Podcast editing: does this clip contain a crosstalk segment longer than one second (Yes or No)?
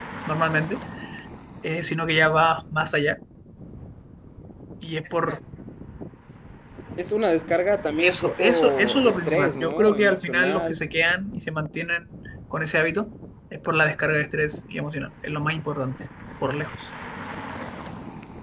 Yes